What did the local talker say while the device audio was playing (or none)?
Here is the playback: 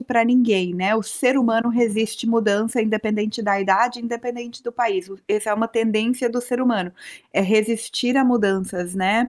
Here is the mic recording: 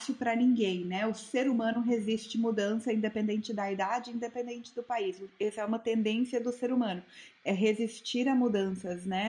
none